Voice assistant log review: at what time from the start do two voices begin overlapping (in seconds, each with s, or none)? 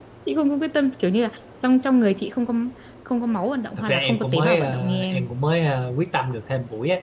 3.8 s